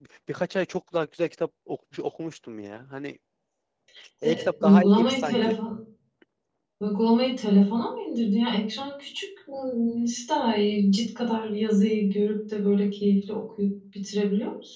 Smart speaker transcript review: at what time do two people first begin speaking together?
4.2 s

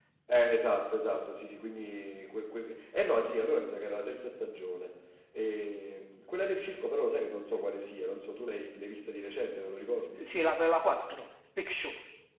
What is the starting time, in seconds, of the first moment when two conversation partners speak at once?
none

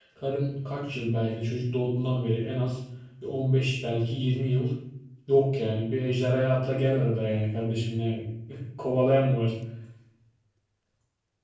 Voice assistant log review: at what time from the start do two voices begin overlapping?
none

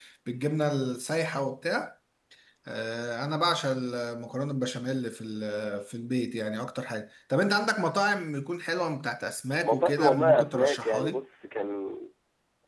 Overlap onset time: 9.6 s

